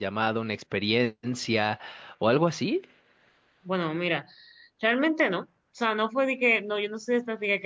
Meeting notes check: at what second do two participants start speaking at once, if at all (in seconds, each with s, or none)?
none